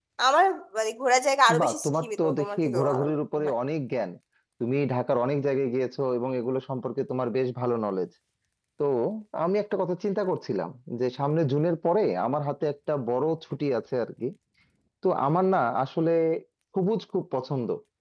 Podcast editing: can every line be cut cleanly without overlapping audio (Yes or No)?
No